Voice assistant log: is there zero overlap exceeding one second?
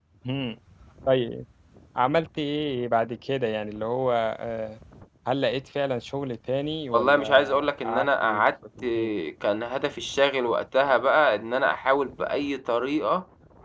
No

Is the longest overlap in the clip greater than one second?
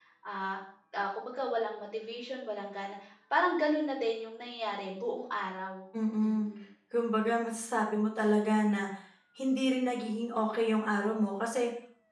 No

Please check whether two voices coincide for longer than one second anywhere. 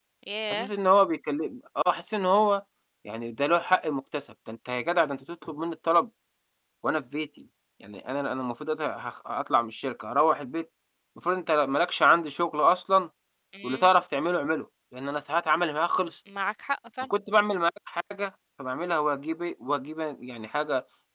No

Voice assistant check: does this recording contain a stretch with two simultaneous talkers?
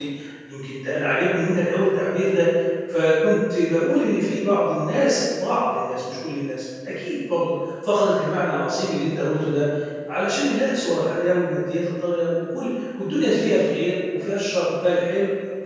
No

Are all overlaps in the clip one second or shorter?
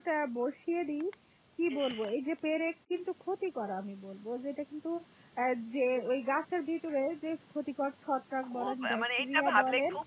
No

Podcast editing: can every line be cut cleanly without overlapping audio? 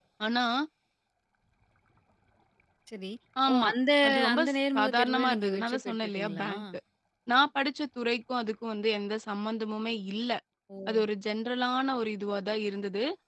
No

